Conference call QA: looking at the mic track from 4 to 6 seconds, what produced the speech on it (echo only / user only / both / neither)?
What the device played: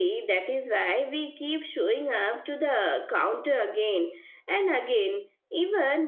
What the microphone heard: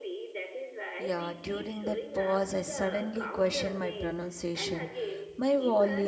both